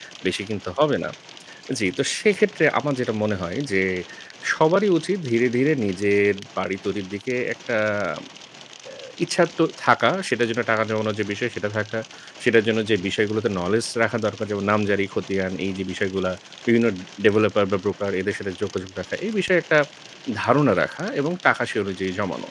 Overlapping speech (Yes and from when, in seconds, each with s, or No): No